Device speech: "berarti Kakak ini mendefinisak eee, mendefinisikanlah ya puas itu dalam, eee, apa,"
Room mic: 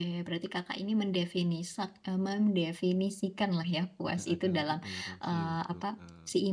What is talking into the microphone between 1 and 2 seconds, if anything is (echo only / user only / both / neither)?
echo only